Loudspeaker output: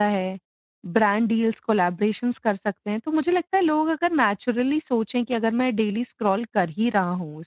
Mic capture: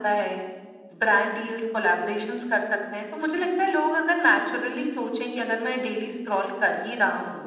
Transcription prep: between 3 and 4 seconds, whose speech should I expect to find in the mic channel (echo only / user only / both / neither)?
echo only